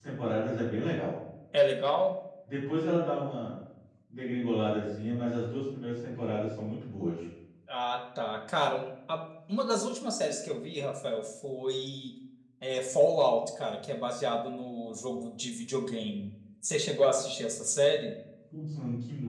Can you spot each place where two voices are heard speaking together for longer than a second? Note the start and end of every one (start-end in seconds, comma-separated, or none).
none